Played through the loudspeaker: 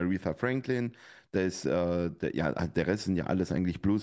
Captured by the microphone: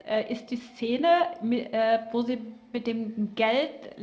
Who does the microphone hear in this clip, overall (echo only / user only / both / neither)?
user only